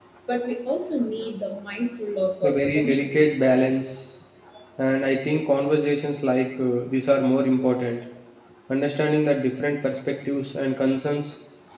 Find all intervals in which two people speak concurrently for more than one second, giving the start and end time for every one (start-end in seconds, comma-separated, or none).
2.4-3.6